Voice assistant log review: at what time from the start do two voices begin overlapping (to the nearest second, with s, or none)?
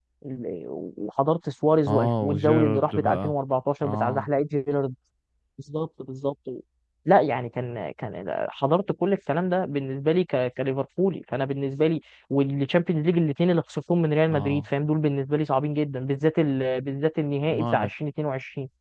2 s